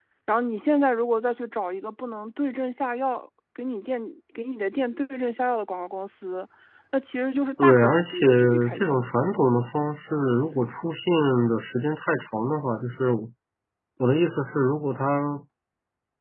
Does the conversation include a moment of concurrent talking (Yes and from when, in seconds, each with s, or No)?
Yes, from 7.6 s